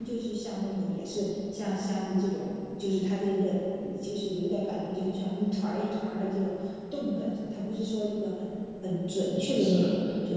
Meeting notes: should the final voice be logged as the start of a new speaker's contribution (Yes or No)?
No